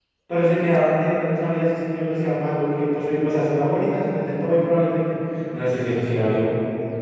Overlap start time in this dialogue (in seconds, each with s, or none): none